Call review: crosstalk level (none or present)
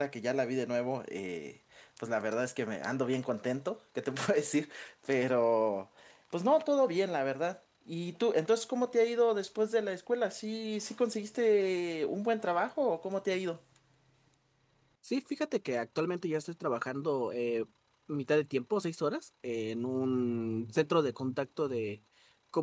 none